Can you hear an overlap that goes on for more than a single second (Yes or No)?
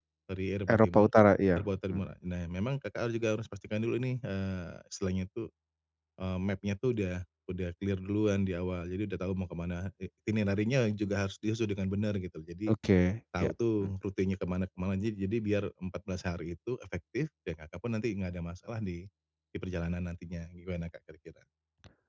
No